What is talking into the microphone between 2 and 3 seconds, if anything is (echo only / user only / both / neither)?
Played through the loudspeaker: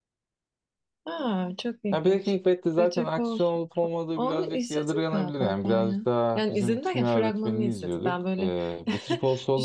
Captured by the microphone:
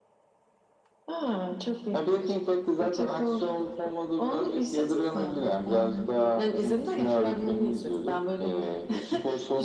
echo only